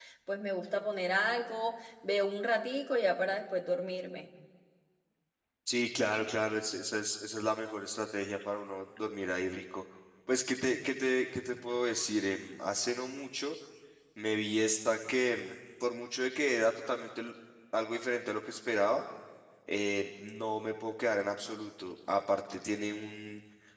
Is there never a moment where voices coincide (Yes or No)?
Yes